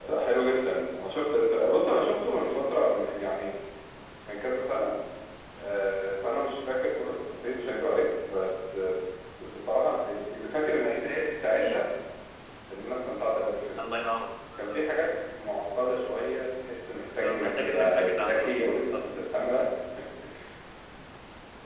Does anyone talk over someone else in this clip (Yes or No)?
Yes